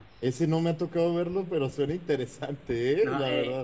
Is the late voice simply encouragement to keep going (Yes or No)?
No